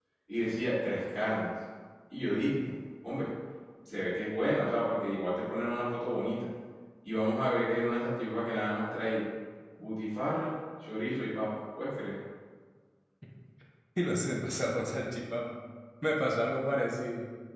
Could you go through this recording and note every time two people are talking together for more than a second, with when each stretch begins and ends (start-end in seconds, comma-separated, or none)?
none